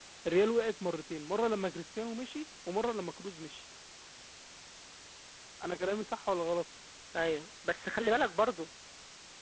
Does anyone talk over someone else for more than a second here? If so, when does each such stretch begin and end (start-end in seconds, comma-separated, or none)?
none